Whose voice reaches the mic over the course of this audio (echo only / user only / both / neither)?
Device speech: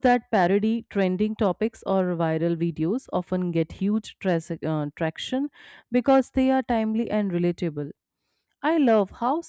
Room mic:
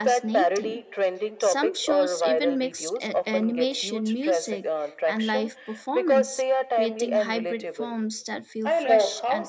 both